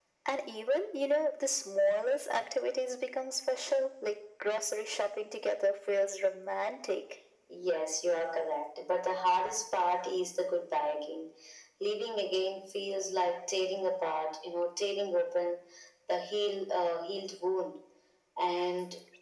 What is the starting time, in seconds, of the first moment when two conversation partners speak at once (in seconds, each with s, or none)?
none